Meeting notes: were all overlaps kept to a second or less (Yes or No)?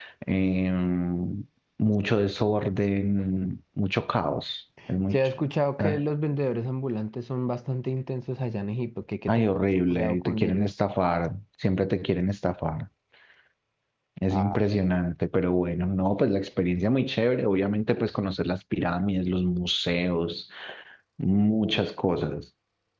No